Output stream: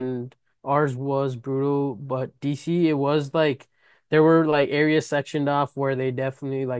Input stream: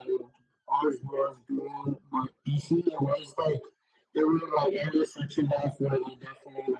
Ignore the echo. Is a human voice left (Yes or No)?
No